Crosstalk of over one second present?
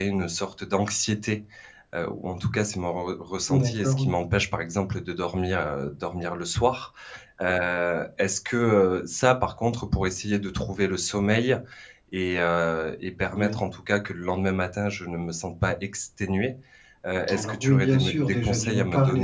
Yes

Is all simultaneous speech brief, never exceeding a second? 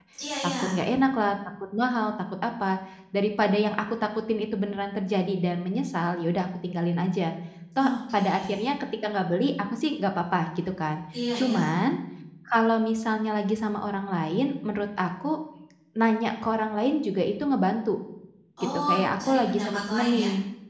No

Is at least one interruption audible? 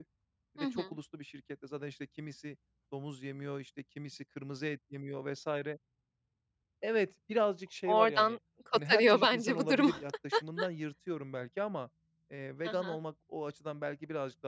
Yes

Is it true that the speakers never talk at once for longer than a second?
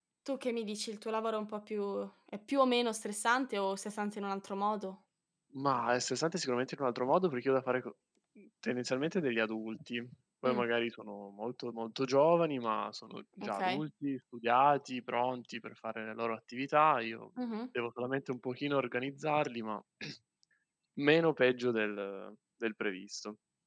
Yes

